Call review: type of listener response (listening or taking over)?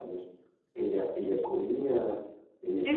taking over